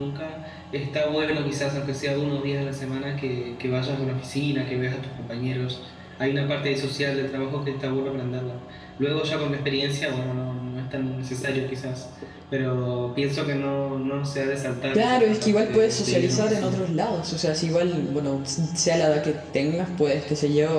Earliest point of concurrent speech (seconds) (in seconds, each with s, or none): 14.9 s